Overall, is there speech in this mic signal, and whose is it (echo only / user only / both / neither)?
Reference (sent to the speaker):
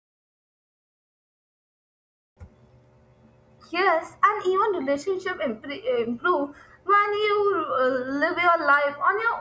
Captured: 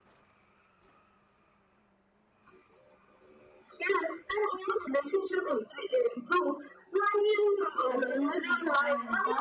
both